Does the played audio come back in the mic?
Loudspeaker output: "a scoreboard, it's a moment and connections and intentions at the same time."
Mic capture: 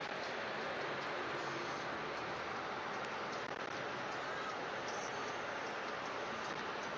No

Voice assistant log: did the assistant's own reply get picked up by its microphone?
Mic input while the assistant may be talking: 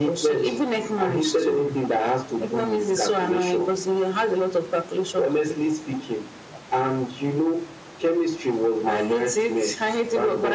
Yes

